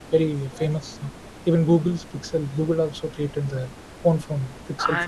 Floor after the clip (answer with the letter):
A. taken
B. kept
A